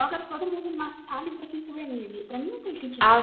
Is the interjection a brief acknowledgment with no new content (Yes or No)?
No